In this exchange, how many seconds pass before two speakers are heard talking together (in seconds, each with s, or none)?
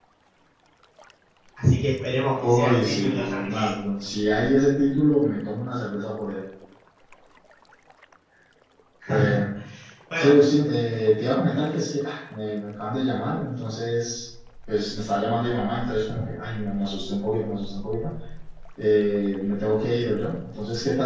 2.4 s